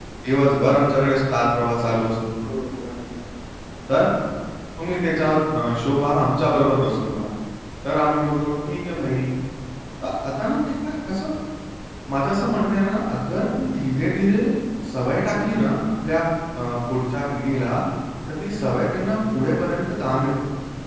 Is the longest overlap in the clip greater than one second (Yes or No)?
No